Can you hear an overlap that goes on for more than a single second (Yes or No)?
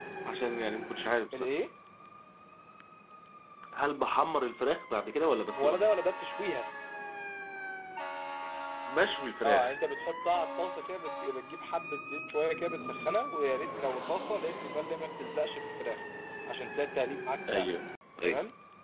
No